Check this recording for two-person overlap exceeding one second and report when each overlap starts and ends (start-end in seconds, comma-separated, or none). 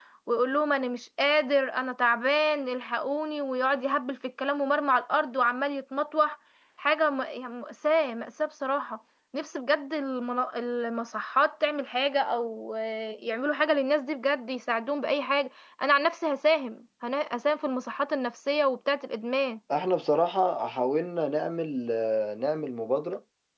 none